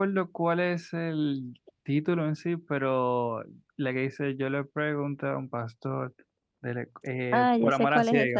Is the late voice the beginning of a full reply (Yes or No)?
Yes